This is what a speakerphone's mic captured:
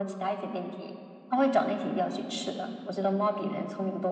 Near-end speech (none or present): none